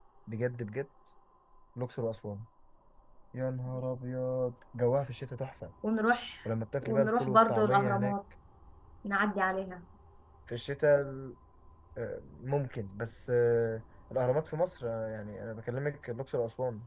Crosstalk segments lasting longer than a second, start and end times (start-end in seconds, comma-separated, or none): 6.8-8.1